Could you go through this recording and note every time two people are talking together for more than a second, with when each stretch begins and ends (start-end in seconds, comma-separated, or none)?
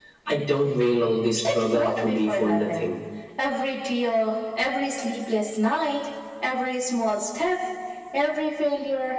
1.4-2.8